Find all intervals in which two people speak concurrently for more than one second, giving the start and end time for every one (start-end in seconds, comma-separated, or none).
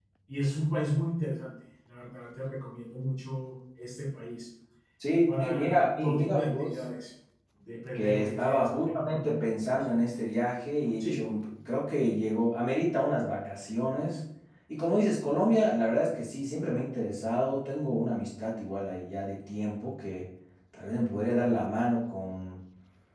5.4-6.8, 7.9-9.3